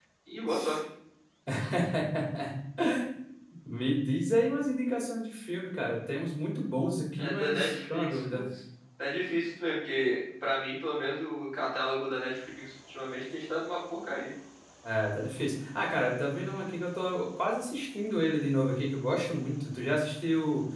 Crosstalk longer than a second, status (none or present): present